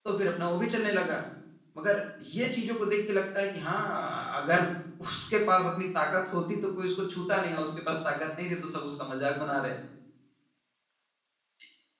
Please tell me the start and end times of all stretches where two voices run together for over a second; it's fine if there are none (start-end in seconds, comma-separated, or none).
none